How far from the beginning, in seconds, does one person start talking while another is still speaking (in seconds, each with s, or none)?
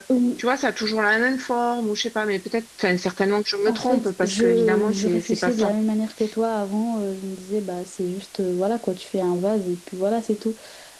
3.7 s